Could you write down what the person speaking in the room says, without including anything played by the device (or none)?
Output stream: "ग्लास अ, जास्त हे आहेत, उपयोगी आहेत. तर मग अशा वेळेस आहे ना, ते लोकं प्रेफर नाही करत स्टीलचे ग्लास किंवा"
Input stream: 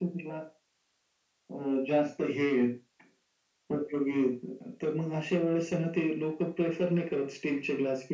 none